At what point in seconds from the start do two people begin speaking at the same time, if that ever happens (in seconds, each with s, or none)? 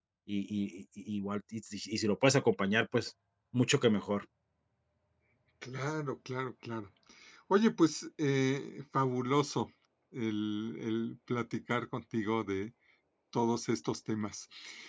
none